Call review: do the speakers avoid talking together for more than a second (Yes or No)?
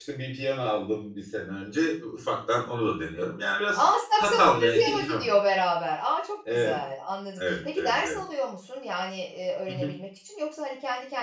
No